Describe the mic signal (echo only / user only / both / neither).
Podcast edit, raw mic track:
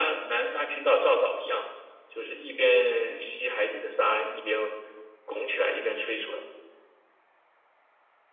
echo only